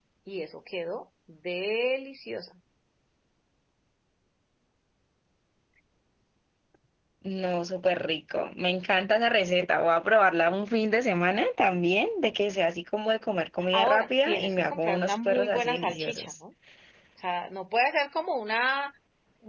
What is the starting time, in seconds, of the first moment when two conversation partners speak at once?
13.7 s

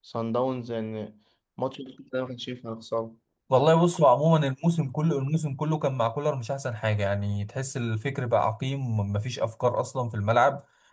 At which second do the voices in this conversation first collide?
none

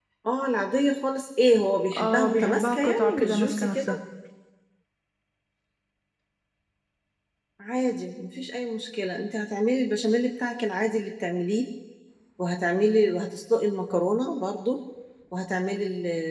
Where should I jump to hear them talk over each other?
1.9 s

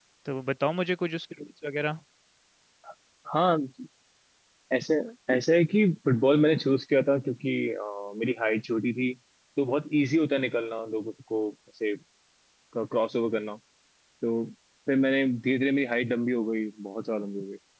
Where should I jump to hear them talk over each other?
none

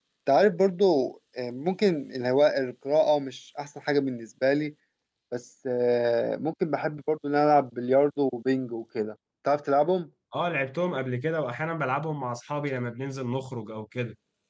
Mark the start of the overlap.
none

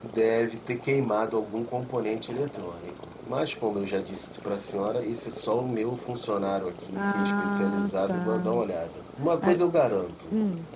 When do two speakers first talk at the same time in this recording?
6.9 s

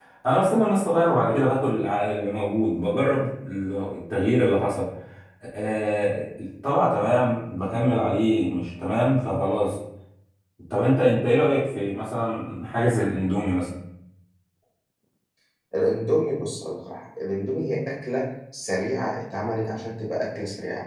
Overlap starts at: none

